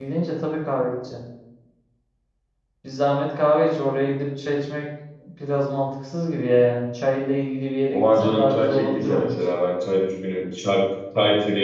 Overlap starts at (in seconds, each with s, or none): 7.9 s